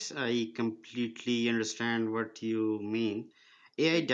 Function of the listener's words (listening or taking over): listening